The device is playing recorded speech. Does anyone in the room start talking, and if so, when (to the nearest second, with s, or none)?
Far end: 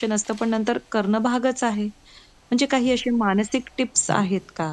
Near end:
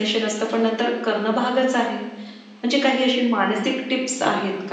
none